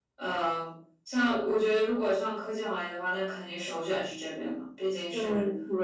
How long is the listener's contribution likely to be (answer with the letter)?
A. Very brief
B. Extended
B